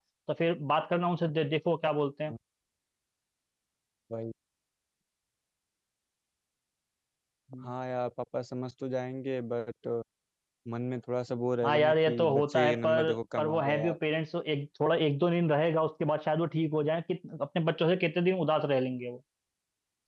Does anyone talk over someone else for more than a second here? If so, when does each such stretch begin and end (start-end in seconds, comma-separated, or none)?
11.6-14.0